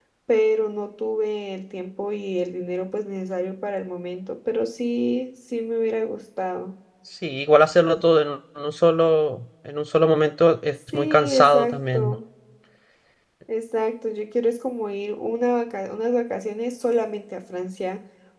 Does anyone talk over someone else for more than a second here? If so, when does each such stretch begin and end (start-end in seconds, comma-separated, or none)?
10.9-12.1